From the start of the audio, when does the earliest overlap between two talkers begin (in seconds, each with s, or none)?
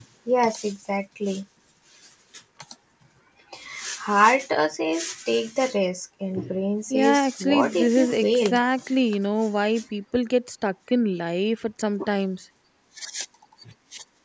6.9 s